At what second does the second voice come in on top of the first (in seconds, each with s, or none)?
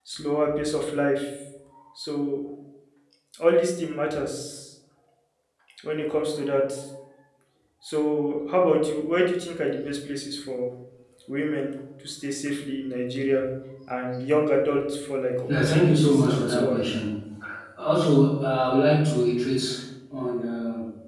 15.5 s